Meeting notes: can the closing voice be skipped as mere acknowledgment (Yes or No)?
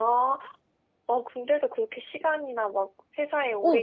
No